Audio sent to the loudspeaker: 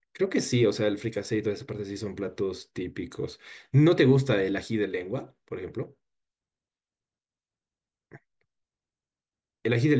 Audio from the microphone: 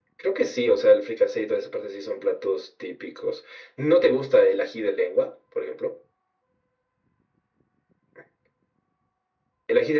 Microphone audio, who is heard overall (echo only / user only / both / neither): echo only